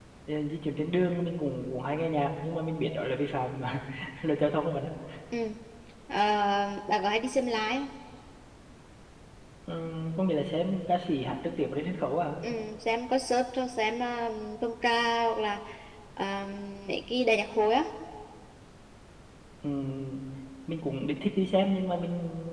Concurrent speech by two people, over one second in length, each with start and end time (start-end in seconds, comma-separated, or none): none